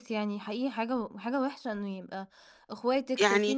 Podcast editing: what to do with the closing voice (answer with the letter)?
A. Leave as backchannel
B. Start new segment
A